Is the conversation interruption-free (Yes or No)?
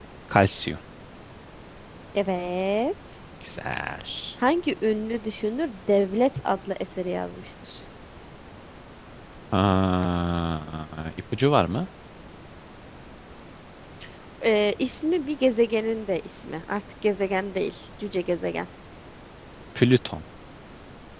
Yes